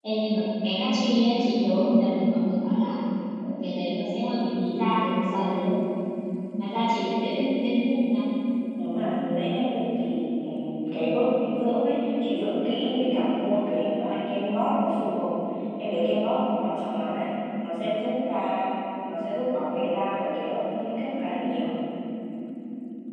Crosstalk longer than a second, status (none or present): none